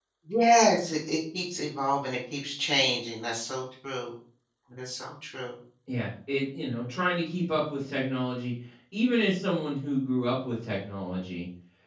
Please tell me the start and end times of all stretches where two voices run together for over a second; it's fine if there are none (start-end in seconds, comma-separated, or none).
none